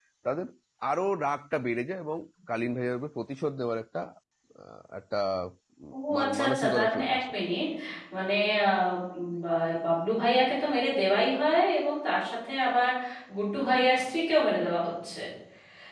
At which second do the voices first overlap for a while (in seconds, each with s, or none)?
5.9 s